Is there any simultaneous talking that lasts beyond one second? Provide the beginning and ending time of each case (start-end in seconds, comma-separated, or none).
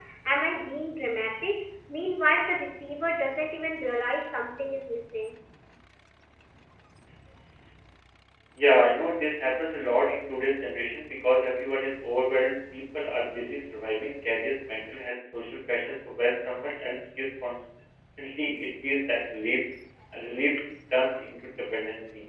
none